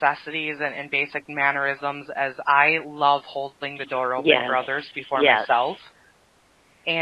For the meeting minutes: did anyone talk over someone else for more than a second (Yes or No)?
Yes